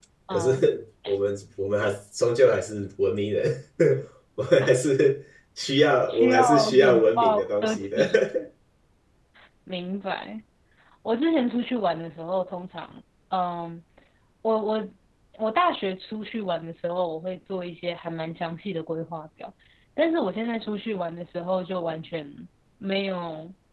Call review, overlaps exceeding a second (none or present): present